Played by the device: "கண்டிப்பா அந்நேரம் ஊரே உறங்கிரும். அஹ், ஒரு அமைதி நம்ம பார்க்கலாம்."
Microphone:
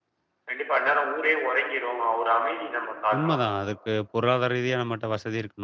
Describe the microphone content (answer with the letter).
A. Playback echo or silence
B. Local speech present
B